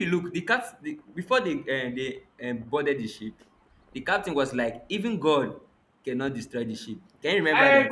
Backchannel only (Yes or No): No